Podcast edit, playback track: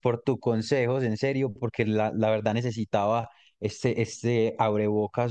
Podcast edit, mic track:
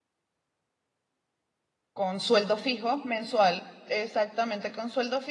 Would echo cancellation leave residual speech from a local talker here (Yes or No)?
Yes